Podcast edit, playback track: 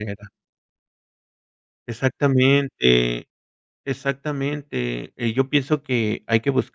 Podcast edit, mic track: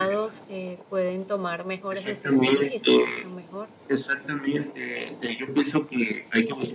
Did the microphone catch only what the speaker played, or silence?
No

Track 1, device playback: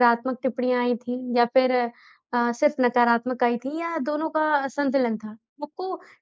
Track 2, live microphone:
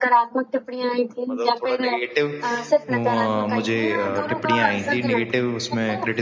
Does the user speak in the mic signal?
Yes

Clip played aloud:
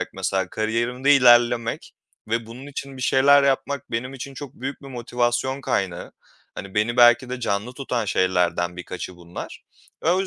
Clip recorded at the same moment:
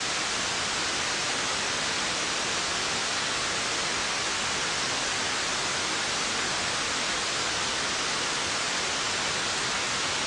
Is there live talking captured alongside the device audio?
No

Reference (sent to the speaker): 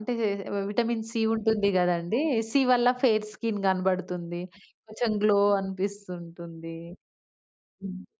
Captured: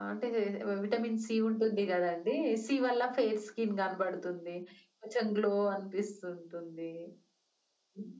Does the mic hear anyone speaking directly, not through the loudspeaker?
No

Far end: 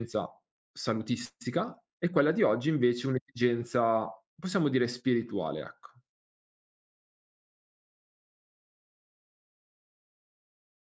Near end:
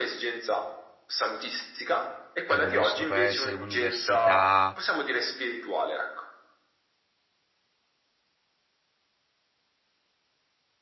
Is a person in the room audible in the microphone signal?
Yes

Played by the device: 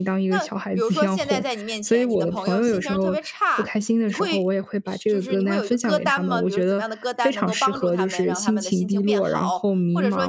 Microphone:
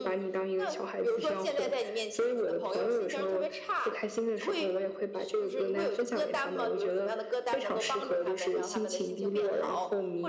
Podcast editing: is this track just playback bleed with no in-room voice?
Yes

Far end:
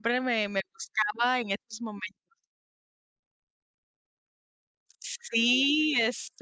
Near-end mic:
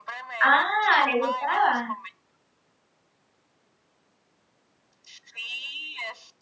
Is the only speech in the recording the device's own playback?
No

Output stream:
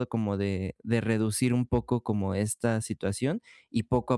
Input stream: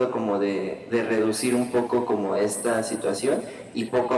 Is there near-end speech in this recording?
No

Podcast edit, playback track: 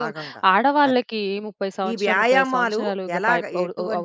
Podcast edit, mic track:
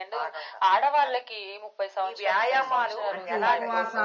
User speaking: Yes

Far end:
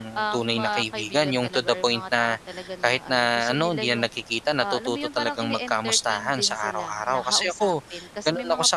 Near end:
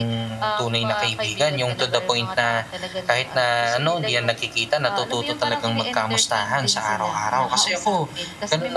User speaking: No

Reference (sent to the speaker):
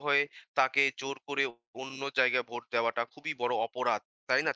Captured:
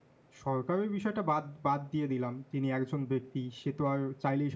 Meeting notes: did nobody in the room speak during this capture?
No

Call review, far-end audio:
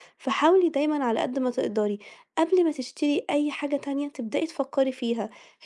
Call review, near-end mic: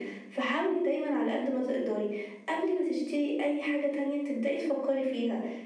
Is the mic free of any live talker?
Yes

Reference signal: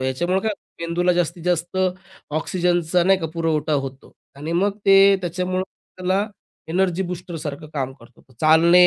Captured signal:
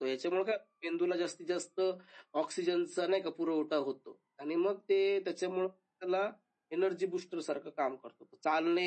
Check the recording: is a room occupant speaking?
No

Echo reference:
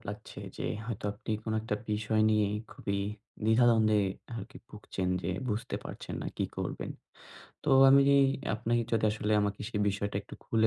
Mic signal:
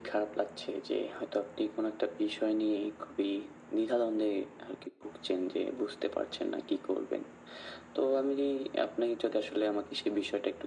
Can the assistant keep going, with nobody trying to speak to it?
Yes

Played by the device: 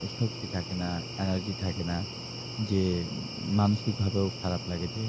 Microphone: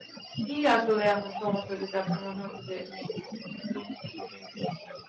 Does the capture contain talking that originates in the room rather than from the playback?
Yes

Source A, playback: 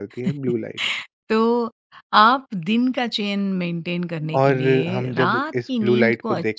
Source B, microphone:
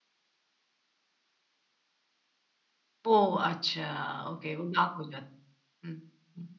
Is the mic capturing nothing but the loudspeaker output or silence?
No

